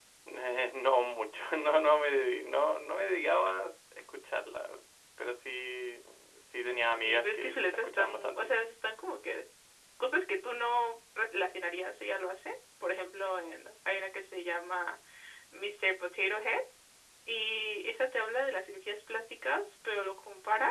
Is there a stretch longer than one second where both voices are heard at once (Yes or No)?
Yes